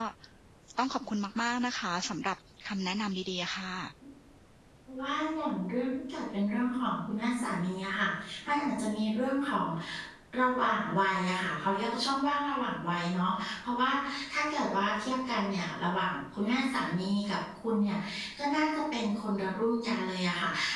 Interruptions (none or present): none